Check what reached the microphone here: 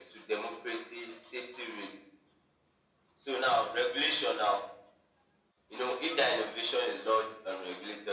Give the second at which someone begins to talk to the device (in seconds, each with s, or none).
none